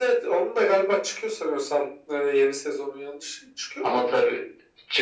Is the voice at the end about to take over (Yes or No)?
Yes